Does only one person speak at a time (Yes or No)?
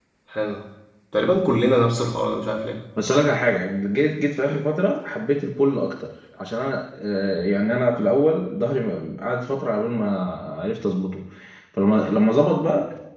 Yes